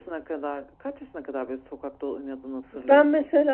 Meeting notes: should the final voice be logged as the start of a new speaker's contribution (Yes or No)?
Yes